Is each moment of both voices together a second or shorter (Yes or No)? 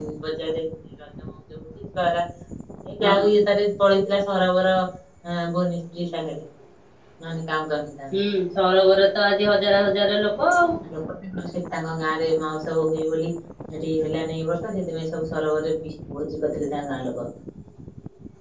Yes